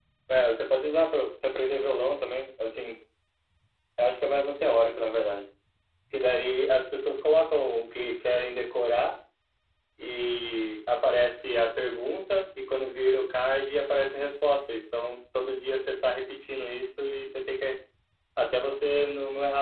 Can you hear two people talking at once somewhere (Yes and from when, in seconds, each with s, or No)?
No